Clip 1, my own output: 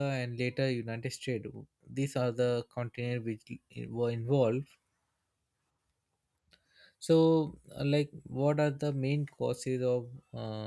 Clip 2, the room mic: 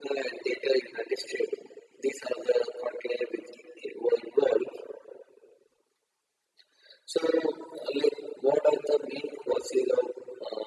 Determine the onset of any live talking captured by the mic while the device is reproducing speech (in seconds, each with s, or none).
none